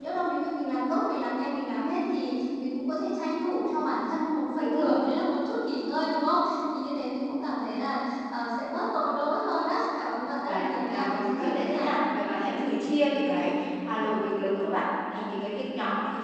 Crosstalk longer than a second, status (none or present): present